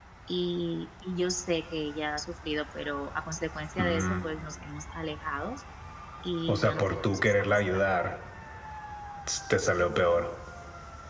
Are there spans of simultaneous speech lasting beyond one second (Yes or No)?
Yes